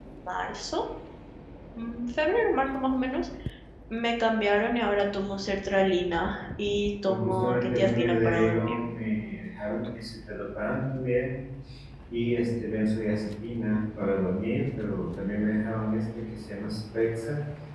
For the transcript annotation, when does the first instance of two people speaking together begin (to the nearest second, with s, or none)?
7 s